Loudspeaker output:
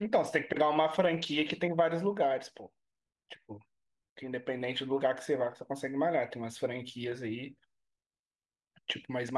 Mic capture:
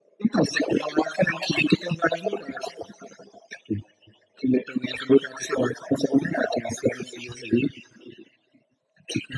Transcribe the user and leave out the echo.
none

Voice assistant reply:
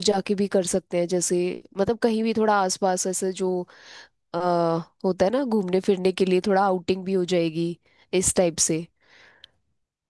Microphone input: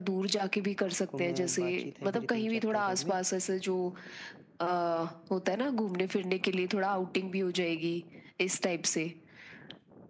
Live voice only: को मैं बातचीत है मेरी तीन चार कैफे में

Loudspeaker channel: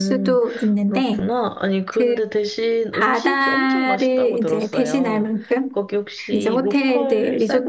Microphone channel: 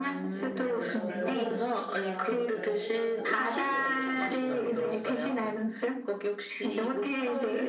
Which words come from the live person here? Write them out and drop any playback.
네, 그래서 저 레몬그라스 치킨이랑 레몬그라스 포크찹 이런 거 되게 좋아해요.

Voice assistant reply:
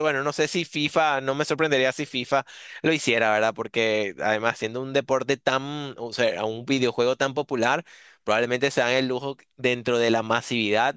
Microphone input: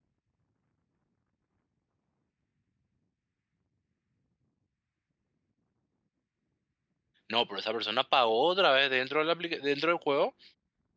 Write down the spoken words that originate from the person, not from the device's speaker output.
No, pero esa persona pagó otra vez dentro de la aplica- dentro del juego

